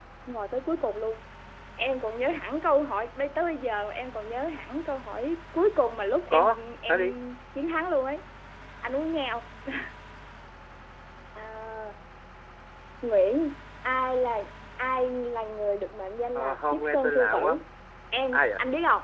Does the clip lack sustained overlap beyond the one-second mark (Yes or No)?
No